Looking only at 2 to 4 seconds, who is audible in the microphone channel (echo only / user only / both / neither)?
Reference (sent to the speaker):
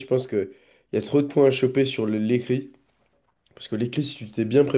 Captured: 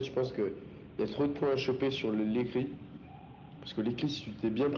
echo only